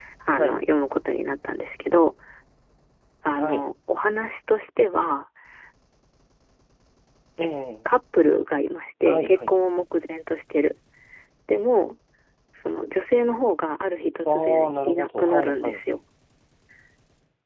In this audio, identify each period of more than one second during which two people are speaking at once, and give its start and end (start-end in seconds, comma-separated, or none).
14.2-16.0